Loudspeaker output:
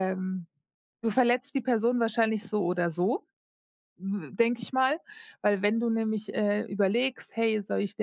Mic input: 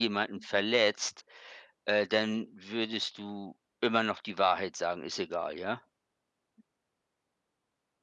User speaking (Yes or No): Yes